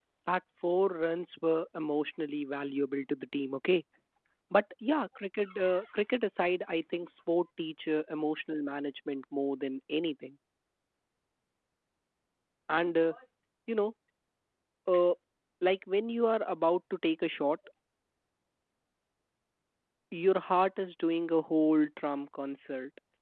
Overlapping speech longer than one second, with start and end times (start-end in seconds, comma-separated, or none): none